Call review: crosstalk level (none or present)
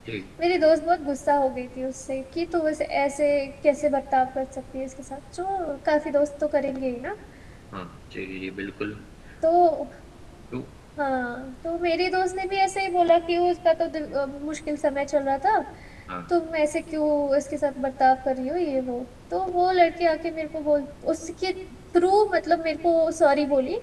none